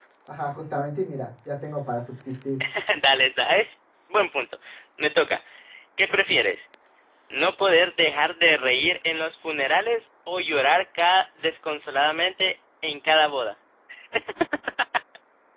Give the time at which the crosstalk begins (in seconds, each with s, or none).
none